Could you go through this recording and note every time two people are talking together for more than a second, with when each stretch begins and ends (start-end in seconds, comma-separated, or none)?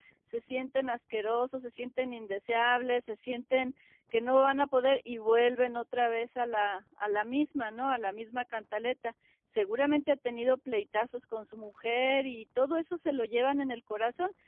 none